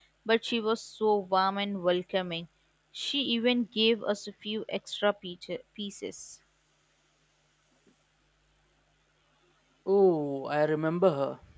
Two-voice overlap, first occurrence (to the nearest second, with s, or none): none